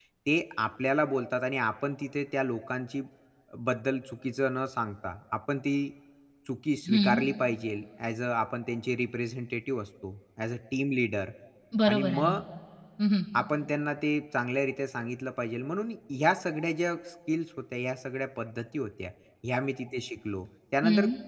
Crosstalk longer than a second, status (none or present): none